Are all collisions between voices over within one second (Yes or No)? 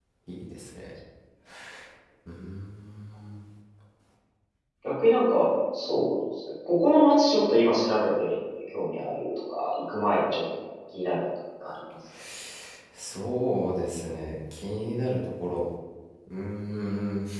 Yes